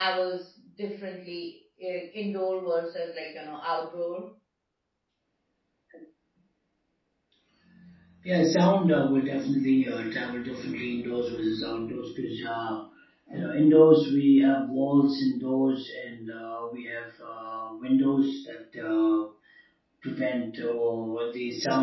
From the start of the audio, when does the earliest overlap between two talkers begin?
none

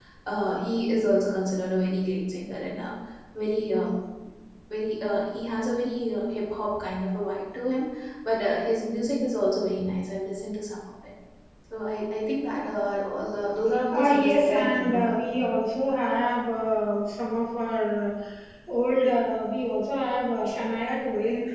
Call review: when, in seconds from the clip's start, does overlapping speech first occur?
14 s

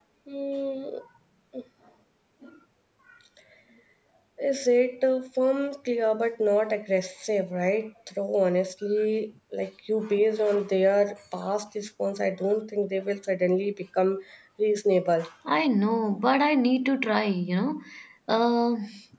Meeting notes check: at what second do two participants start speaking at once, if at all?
none

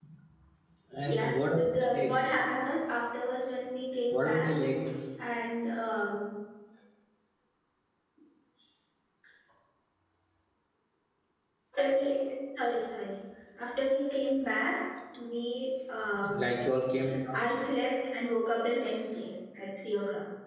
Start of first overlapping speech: 1 s

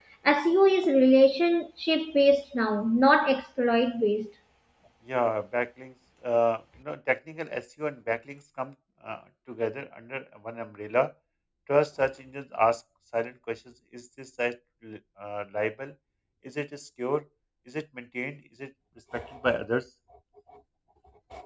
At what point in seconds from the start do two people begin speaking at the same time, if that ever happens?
none

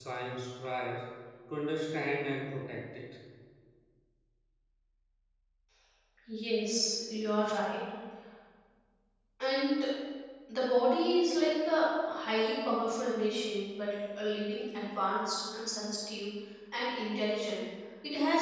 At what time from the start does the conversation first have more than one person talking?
none

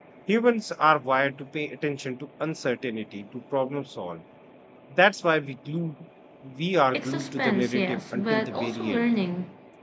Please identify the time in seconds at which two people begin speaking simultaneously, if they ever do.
7 s

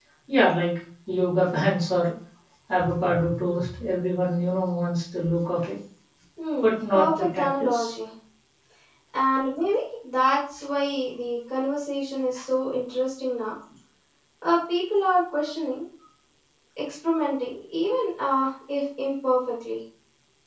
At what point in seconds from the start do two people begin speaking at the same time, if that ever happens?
7 s

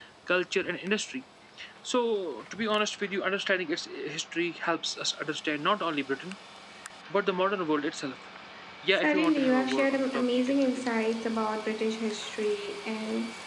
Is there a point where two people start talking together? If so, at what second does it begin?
9 s

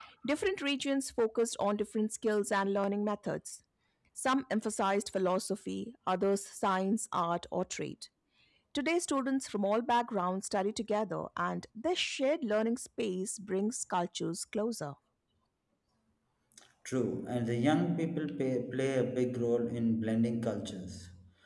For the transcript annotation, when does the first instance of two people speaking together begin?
none

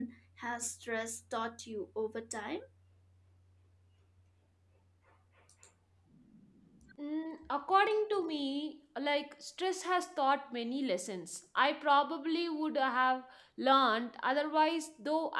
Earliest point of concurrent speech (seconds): none

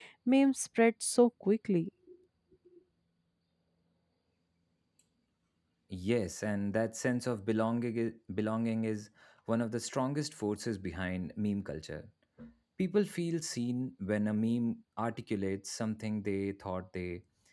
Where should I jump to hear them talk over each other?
none

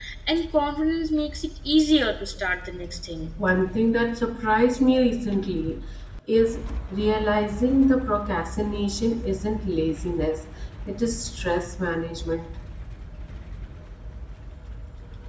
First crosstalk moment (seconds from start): none

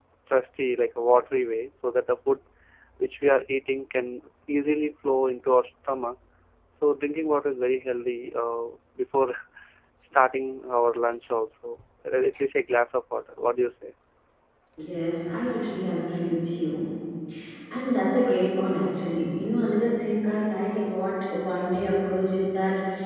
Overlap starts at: none

